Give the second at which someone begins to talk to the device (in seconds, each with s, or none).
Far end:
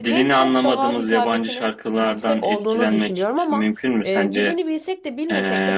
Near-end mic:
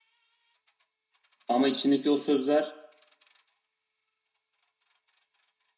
1.5 s